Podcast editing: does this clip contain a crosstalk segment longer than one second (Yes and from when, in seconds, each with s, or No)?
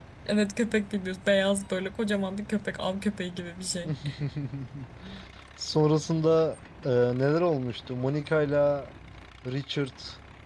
No